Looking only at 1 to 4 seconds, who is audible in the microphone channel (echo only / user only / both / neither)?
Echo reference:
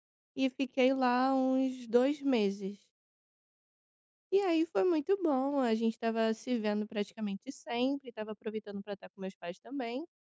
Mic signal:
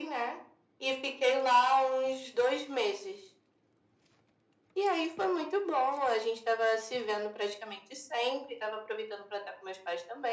echo only